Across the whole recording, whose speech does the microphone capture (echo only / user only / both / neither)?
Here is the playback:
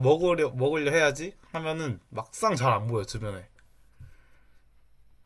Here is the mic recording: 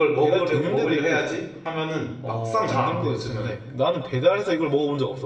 both